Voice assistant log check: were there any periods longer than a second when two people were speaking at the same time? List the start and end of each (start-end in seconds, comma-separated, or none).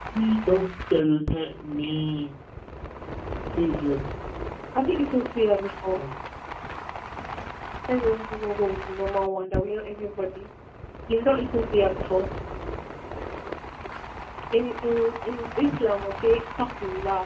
none